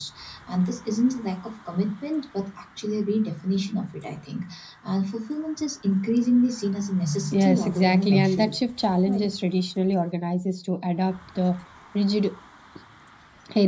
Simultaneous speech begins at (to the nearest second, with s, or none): 7 s